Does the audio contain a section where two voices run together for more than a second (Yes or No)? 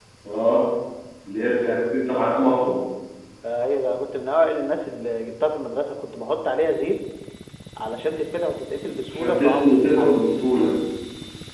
Yes